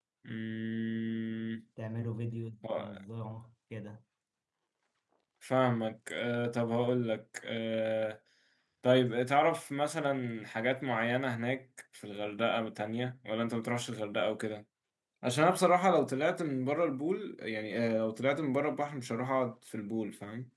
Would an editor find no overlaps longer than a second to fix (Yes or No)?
Yes